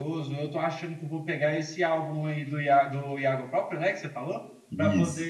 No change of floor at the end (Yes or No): Yes